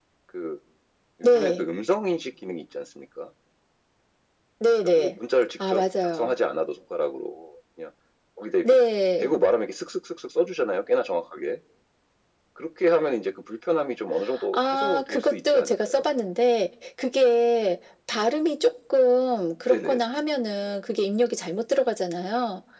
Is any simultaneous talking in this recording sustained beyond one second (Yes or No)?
Yes